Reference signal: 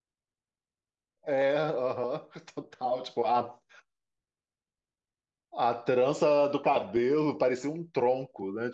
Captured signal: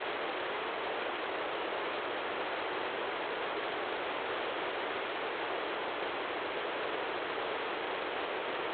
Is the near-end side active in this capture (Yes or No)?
No